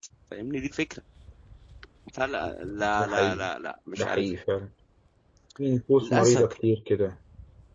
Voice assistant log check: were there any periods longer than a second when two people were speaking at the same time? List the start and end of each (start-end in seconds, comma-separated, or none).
none